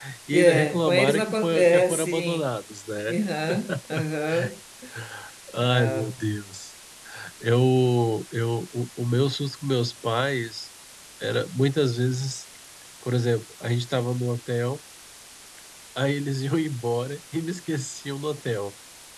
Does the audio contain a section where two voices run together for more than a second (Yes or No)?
Yes